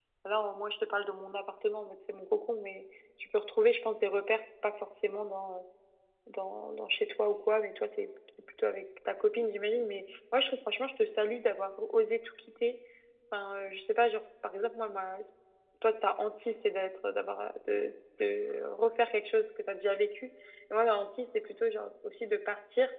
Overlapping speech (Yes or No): No